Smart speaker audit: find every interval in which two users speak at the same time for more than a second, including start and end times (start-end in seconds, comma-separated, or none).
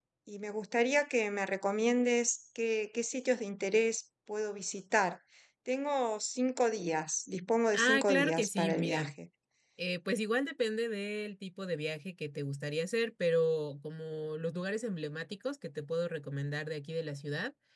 7.7-9.1